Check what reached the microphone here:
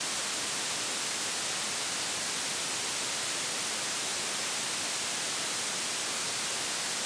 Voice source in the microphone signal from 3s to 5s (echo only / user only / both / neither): neither